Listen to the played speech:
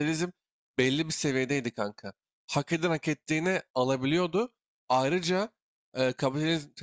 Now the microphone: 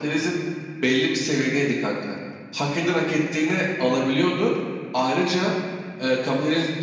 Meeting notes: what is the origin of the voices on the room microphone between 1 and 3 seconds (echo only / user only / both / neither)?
echo only